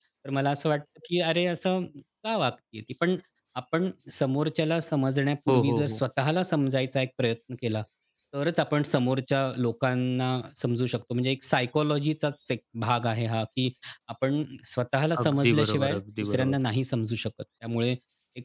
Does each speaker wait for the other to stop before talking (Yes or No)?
No